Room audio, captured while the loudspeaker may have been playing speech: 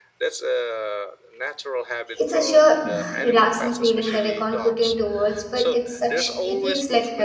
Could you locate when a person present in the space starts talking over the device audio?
2.2 s

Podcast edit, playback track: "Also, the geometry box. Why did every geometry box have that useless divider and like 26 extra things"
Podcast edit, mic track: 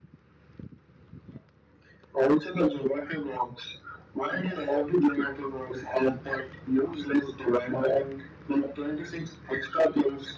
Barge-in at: none

